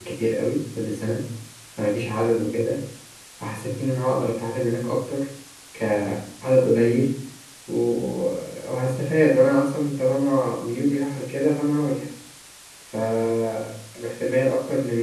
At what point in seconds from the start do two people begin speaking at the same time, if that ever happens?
none

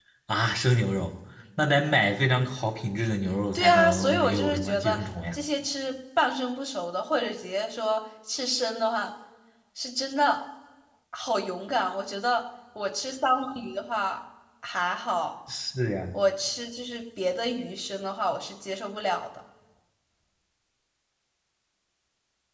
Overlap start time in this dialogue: 3.6 s

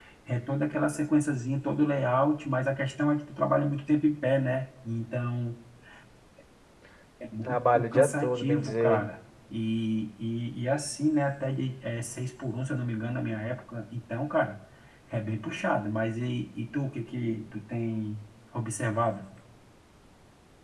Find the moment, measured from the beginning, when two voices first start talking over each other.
7.4 s

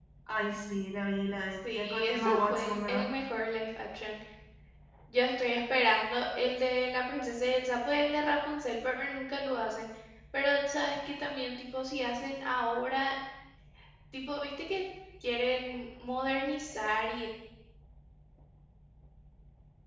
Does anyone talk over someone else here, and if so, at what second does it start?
1.7 s

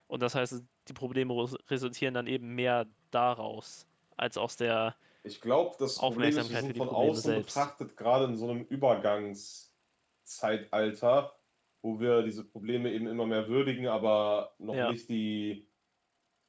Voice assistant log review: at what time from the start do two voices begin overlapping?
6.0 s

